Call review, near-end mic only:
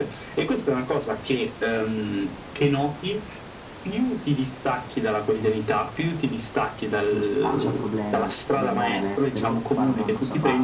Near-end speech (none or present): present